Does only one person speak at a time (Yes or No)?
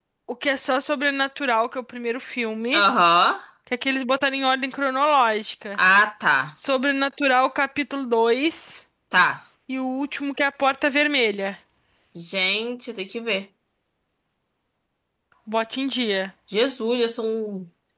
Yes